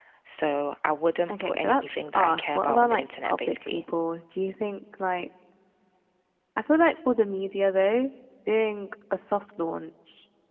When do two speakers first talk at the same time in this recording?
1.3 s

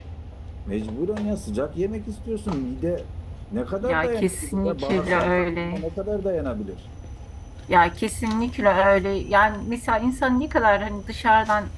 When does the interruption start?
3.8 s

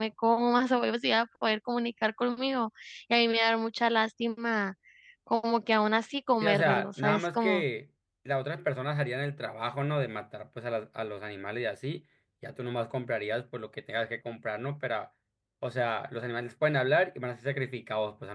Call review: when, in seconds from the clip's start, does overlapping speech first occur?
6.4 s

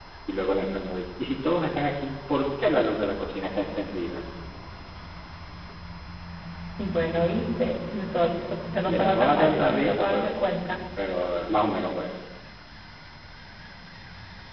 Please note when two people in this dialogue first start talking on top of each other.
8.9 s

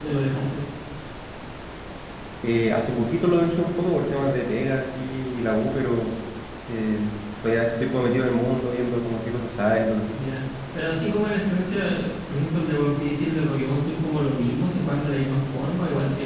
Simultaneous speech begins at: none

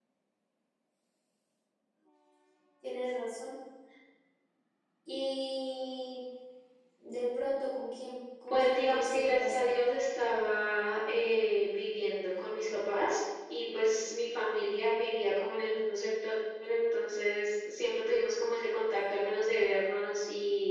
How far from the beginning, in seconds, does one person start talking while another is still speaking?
8.5 s

